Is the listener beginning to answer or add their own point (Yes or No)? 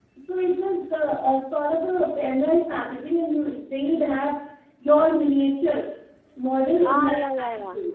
Yes